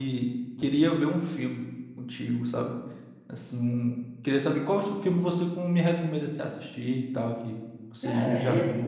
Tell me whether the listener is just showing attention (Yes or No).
No